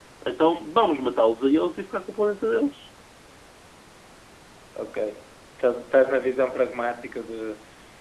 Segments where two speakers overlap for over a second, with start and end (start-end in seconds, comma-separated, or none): none